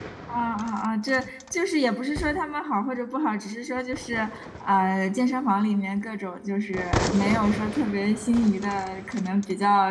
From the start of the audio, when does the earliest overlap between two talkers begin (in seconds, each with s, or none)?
none